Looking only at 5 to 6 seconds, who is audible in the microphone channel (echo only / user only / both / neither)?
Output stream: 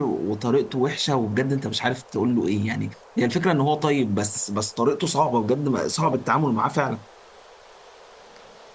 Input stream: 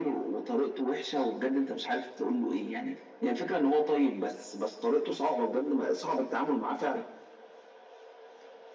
echo only